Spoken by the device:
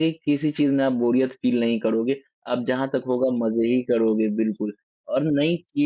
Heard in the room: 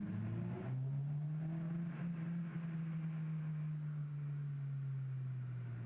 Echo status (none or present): none